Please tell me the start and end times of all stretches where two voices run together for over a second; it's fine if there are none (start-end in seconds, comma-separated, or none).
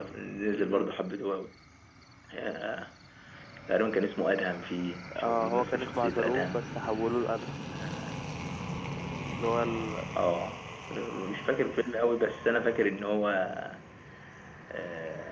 5.2-6.7